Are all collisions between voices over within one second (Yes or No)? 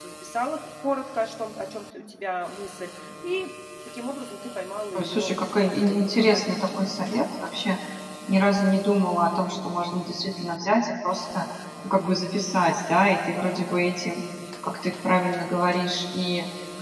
No